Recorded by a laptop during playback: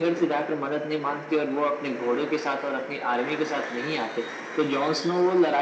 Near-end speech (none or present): none